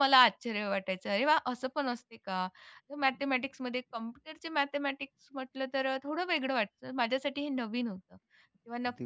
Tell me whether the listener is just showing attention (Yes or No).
Yes